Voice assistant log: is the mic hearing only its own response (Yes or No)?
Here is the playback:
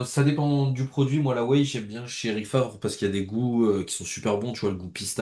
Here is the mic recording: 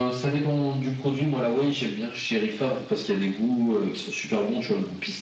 Yes